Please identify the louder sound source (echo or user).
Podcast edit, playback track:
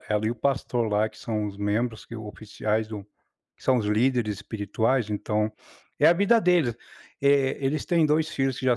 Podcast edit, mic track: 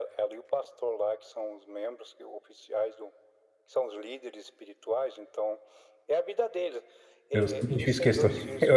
user